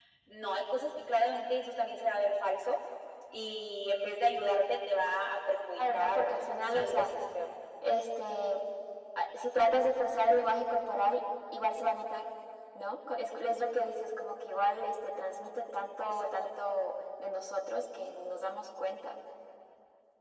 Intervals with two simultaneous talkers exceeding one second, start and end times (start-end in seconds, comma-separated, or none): 5.8-7.0